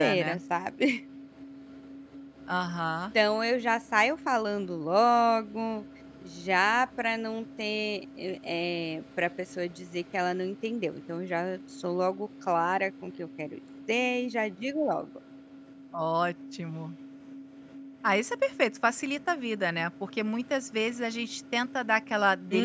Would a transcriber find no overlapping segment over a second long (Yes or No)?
Yes